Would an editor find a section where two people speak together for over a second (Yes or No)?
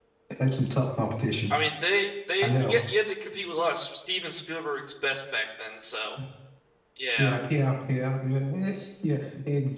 No